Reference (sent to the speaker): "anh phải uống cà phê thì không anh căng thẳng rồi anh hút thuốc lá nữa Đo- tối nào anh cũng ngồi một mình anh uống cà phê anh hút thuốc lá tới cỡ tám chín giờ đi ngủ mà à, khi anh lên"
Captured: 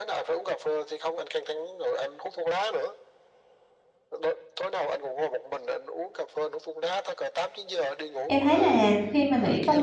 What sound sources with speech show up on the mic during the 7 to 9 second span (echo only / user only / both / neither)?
both